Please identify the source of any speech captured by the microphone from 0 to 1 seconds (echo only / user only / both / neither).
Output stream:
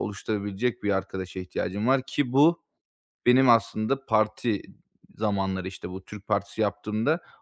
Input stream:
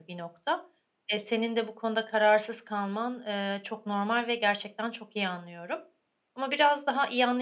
user only